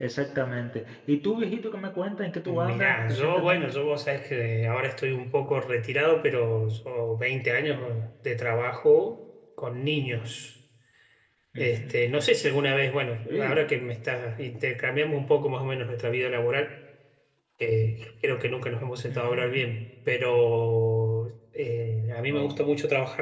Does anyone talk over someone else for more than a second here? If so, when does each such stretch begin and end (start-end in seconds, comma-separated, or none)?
2.5-3.7